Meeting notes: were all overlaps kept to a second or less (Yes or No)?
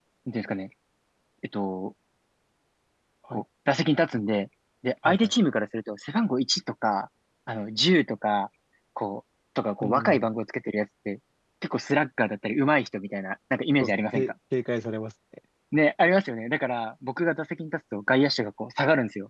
Yes